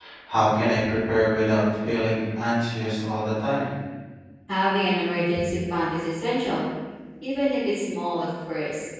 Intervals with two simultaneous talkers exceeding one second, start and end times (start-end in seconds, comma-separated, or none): none